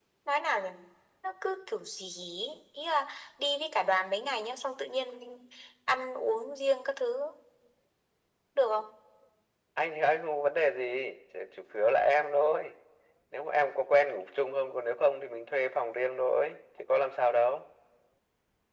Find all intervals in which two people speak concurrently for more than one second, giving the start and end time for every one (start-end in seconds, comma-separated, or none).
none